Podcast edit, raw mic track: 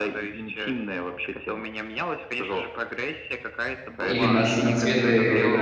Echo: present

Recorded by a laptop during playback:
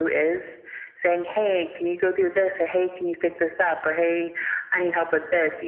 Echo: present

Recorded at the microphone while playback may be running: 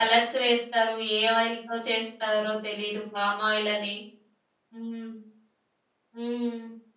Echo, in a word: none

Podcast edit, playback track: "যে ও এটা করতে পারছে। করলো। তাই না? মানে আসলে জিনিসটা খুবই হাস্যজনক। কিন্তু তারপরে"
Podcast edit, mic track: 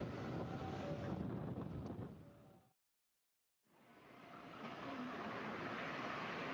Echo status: none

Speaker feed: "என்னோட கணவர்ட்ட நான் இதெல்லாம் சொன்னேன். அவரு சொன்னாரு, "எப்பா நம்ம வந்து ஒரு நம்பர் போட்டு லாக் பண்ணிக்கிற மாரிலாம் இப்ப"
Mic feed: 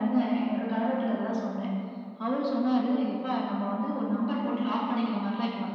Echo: present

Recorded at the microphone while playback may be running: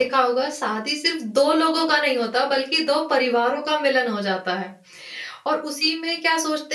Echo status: none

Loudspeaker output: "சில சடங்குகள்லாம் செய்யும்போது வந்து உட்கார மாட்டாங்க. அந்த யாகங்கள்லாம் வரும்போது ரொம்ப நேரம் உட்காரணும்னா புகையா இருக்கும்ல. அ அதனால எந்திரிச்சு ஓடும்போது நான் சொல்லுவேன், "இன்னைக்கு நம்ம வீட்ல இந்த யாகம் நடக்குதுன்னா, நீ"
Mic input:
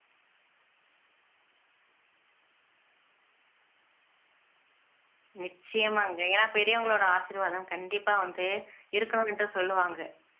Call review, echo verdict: none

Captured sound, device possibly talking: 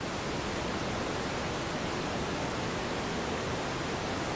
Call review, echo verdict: none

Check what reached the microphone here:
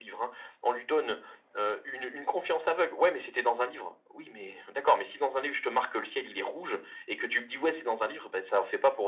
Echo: present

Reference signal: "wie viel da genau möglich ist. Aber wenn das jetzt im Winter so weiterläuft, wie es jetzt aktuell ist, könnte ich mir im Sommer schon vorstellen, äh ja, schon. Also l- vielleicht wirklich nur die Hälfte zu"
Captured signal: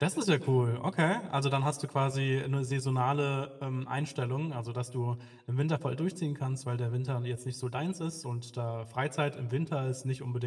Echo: none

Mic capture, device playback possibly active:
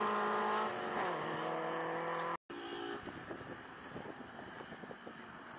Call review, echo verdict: none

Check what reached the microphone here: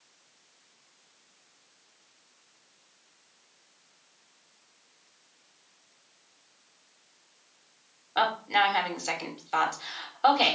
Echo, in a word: none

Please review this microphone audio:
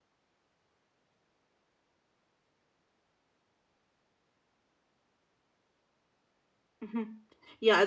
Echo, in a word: none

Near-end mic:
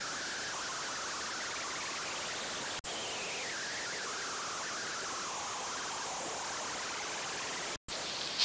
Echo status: none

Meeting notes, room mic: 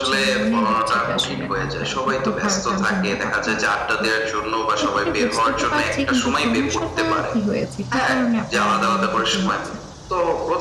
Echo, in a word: present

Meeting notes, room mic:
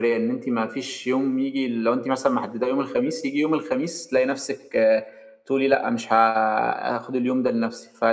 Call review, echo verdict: present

